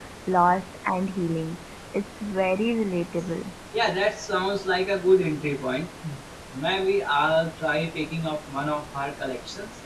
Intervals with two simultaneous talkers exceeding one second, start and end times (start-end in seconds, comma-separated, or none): none